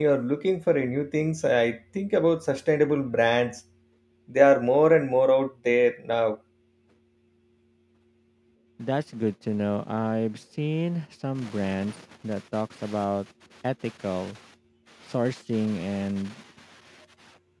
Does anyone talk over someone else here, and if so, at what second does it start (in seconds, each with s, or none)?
none